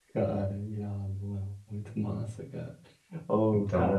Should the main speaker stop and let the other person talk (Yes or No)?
No